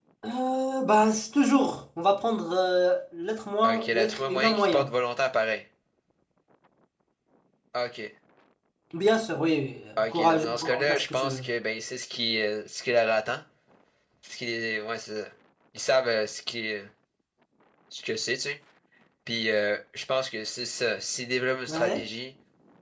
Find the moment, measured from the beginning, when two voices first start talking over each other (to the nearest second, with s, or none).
4 s